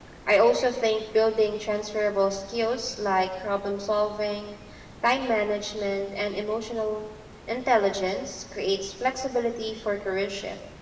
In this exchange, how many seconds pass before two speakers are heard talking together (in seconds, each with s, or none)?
none